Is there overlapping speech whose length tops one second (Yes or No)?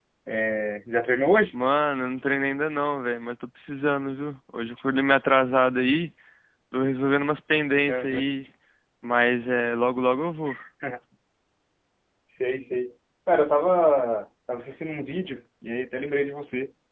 No